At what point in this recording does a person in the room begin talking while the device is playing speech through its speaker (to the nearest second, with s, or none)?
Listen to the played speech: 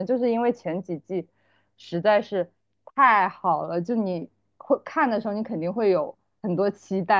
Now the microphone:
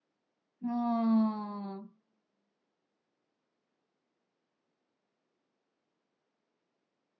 1 s